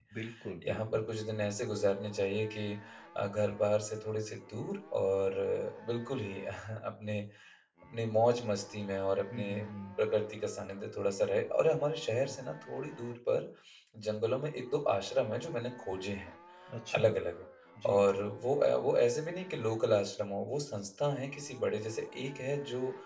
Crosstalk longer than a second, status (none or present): none